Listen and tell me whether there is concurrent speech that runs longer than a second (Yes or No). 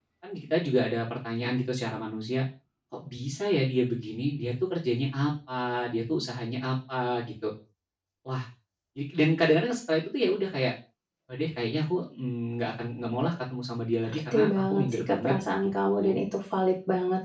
Yes